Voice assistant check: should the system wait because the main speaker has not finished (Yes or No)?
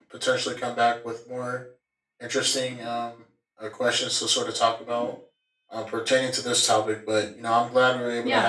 No